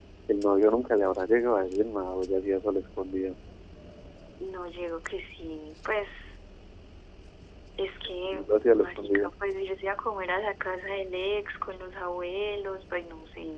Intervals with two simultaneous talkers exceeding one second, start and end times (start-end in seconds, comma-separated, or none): 8.0-9.3